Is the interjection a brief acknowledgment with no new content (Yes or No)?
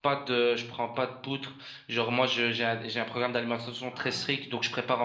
Yes